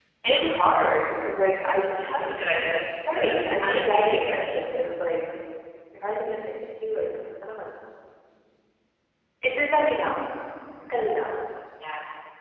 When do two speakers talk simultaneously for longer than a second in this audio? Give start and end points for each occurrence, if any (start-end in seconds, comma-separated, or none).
3.1-4.5